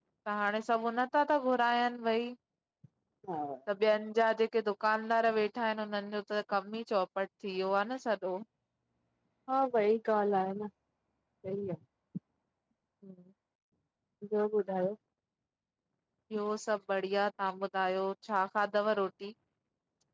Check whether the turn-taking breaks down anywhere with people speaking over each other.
No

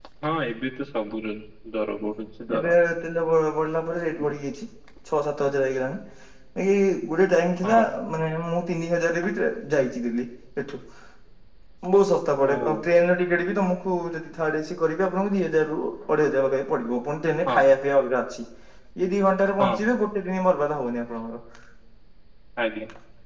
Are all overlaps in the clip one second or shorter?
Yes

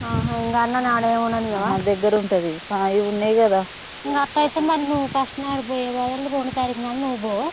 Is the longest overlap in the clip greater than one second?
No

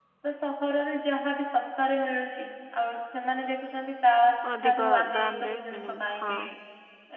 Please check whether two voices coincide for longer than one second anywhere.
Yes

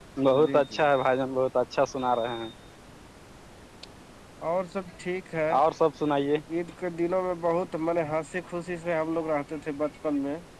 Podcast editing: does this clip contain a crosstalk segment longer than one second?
No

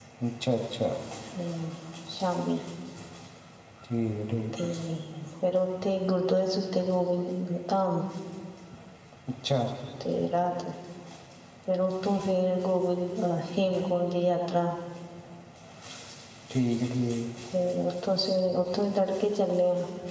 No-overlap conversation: Yes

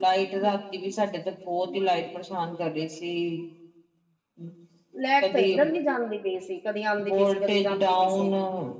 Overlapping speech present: Yes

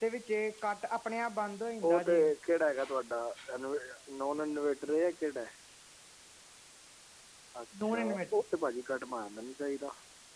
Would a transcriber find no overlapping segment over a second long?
Yes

